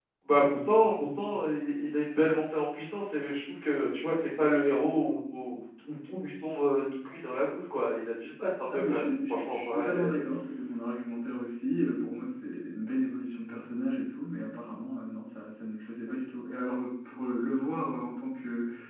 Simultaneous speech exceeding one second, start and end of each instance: 8.7-10.1

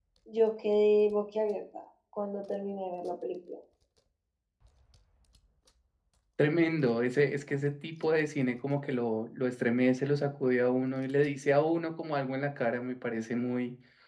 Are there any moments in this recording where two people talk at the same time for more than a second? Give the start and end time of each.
none

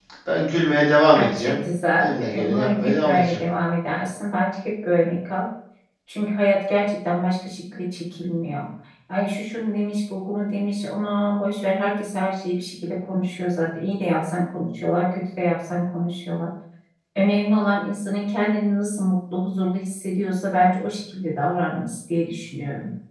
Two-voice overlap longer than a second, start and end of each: 2.0-3.4

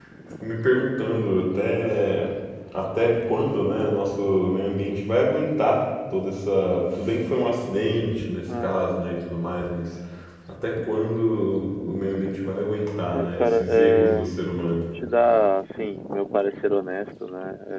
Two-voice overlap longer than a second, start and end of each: 13.1-14.3

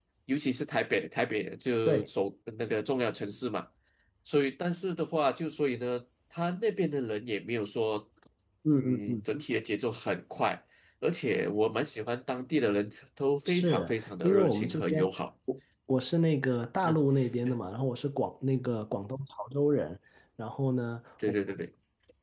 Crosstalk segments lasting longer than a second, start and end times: 13.5-15.1

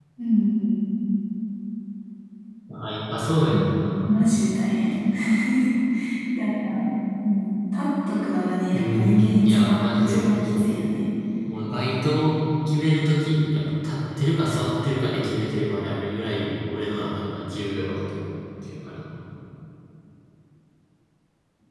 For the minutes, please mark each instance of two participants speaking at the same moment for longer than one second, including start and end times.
8.7-10.7

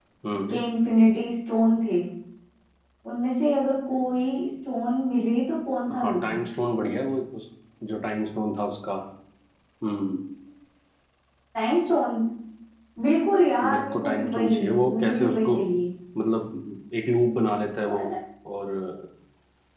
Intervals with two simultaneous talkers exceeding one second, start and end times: 13.6-15.5

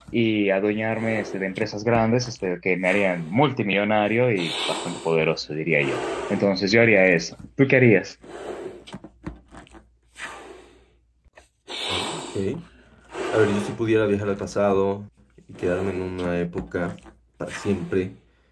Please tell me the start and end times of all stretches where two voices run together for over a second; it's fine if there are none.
none

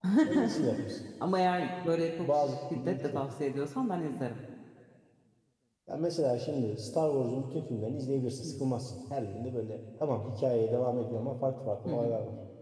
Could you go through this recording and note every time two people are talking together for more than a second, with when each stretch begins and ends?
none

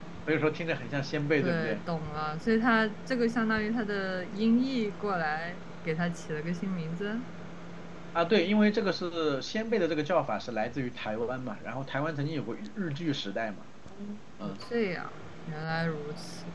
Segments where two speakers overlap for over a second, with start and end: none

